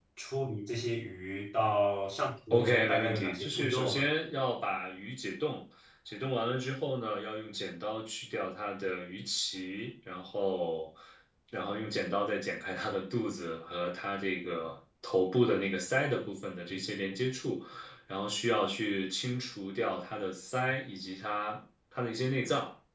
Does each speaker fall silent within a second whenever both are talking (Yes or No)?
No